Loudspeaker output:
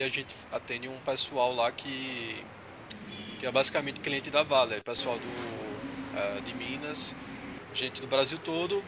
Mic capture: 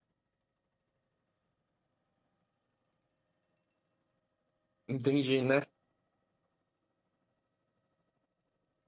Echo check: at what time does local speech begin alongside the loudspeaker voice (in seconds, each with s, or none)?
4.9 s